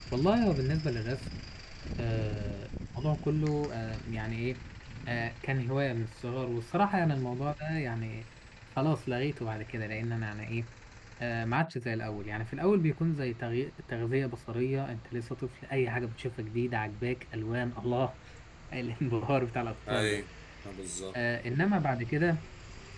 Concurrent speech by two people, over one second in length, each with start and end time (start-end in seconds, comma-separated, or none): none